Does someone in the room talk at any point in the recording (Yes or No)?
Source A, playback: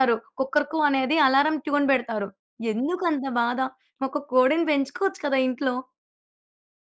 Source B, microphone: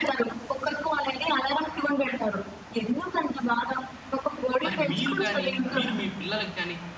Yes